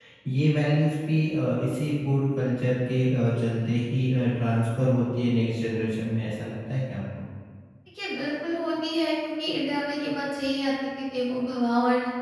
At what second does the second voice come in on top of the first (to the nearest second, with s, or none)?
none